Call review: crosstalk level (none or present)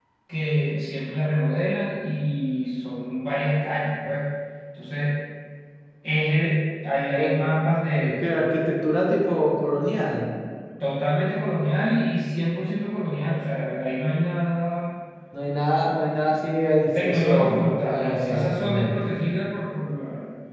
present